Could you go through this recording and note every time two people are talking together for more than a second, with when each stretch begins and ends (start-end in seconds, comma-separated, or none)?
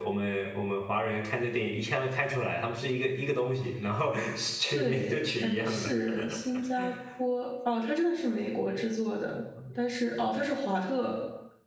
4.8-6.2